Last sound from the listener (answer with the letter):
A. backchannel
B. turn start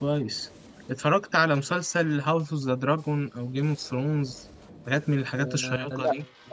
B